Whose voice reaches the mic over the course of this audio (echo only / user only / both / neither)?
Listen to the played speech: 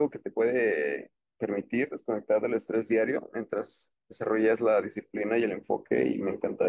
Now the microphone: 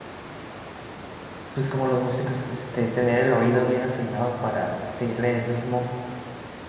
user only